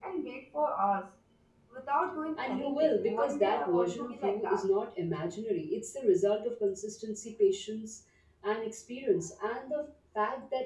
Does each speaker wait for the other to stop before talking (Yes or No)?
No